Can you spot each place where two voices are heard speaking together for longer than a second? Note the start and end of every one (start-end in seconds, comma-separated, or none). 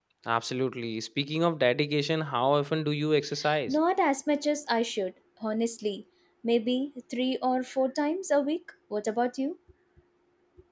none